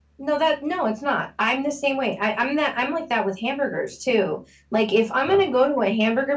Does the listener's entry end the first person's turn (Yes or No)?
No